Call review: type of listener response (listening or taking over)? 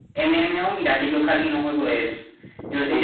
listening